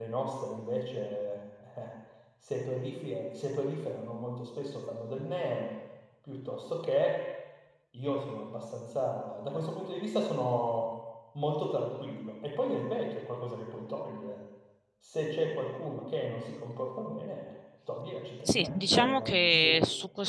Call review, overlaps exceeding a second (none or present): present